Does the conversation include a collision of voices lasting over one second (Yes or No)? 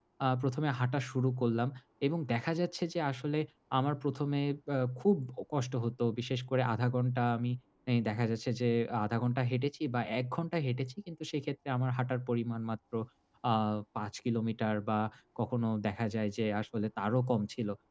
No